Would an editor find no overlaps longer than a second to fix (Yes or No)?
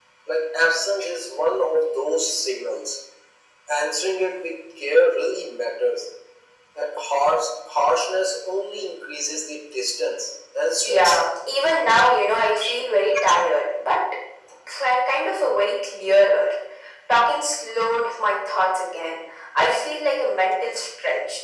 Yes